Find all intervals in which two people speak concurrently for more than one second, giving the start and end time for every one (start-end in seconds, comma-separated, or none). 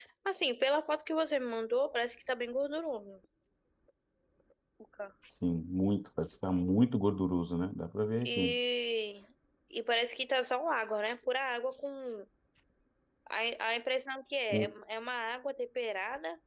none